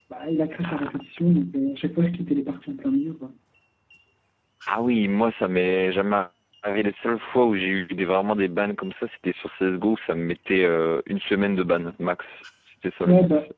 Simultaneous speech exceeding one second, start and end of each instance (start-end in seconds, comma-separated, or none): none